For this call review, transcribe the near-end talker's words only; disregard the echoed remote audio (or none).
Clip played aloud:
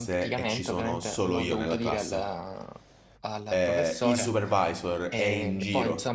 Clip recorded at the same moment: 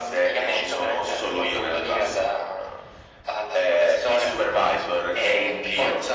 none